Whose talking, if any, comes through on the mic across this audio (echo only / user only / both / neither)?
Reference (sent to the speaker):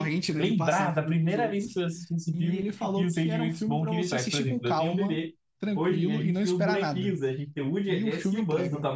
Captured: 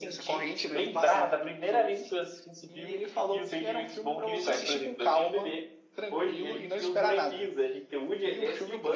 echo only